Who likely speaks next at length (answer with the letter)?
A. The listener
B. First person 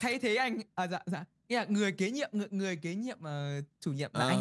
A